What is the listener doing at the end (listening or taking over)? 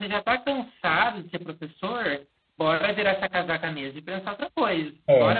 taking over